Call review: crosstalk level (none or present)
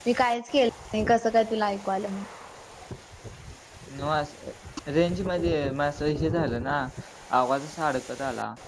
none